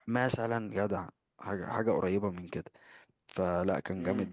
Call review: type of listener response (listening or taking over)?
listening